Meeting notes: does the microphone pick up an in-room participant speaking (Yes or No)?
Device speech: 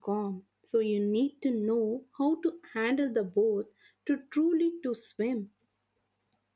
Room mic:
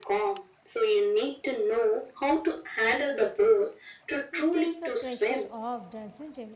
Yes